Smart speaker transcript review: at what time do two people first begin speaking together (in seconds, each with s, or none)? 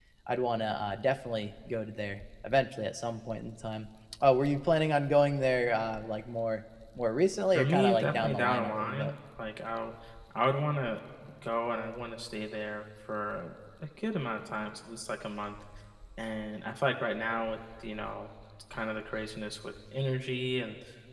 7.5 s